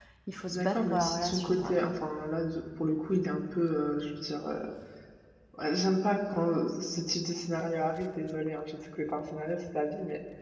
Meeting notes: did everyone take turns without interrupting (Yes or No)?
No